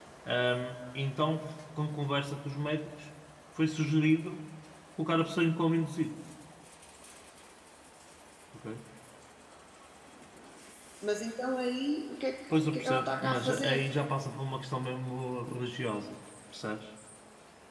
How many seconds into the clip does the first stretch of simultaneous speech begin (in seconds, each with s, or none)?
12.5 s